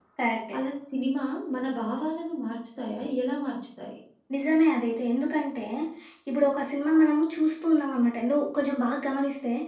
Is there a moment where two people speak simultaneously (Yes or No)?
No